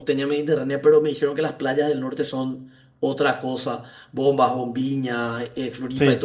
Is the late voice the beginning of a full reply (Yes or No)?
No